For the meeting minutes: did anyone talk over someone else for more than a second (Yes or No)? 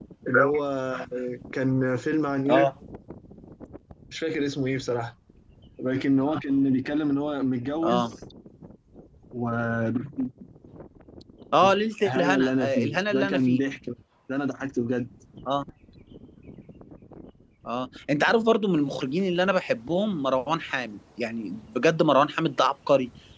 Yes